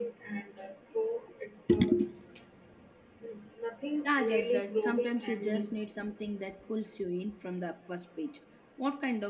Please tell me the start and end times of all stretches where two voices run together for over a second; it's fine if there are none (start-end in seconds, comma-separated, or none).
4.0-5.7